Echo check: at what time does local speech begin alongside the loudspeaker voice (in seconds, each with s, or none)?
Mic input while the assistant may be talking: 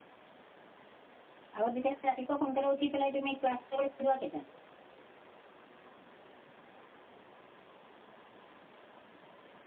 1.6 s